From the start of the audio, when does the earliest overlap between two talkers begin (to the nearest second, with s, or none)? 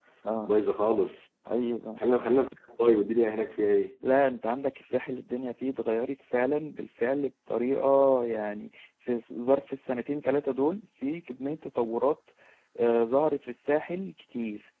none